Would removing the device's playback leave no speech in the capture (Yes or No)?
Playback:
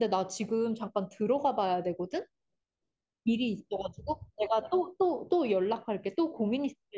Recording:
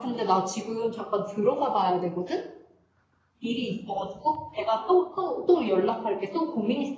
Yes